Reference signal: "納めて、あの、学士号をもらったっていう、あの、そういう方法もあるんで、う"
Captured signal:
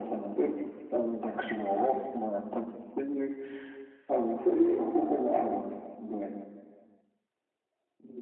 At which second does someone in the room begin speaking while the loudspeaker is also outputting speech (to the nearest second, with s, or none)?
none